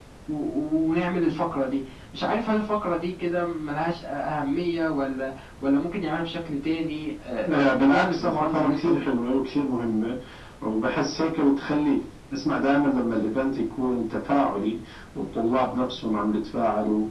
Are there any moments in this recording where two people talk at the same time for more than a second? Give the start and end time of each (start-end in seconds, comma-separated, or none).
7.5-9.2